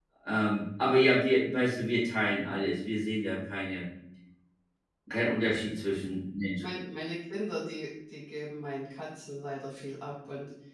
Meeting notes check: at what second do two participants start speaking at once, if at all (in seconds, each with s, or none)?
none